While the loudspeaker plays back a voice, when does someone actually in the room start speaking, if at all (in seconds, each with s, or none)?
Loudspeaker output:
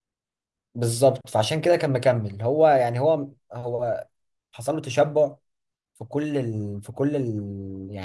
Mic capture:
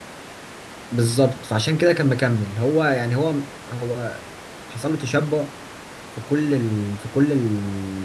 none